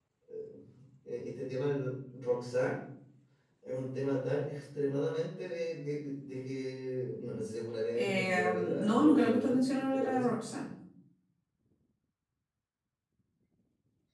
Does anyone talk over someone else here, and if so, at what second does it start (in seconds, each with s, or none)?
8.0 s